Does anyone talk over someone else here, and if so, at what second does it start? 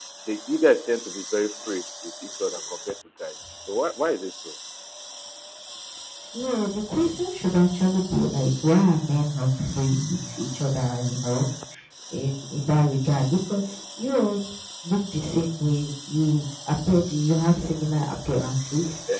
none

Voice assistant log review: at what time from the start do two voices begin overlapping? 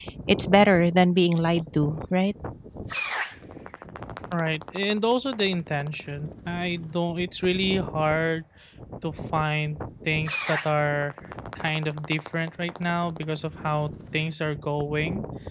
none

